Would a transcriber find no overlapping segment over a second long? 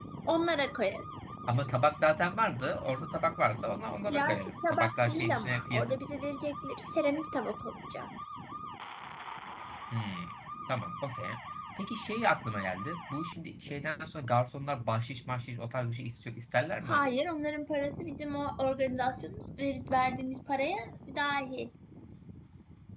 No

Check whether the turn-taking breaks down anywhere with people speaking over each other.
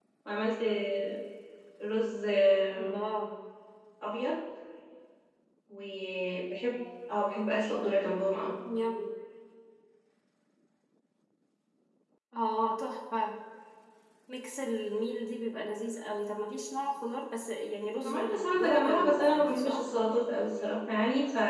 Yes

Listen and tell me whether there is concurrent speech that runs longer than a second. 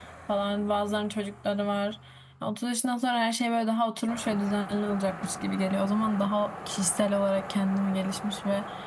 No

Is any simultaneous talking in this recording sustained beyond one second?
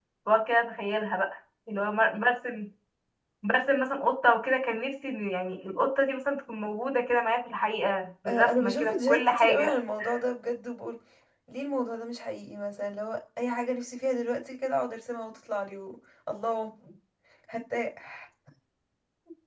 Yes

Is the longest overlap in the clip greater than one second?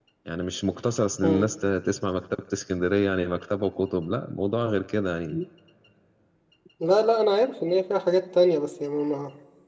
No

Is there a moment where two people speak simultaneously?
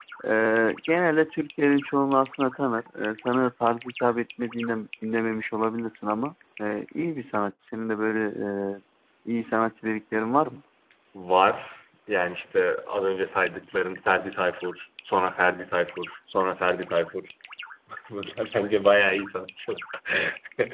No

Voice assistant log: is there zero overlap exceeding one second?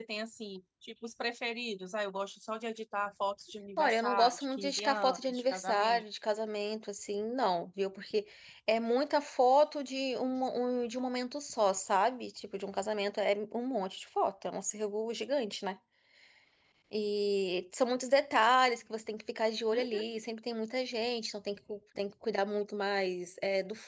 No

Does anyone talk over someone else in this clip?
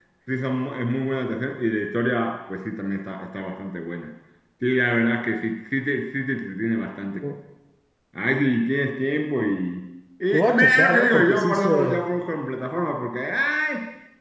Yes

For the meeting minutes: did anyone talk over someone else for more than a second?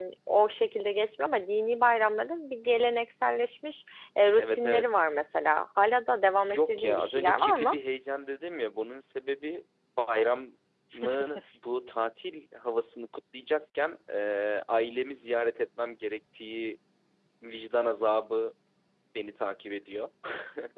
Yes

